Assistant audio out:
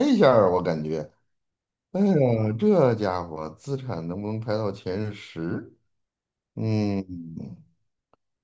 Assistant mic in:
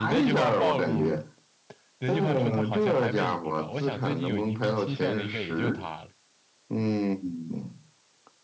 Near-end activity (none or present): present